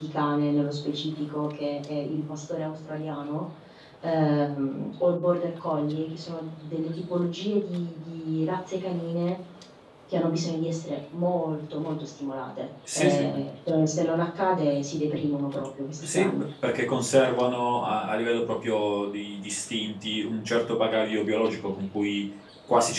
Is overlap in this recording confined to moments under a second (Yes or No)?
Yes